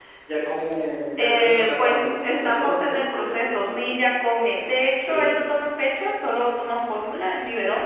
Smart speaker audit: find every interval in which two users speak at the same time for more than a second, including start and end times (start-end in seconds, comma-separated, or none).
1.2-3.9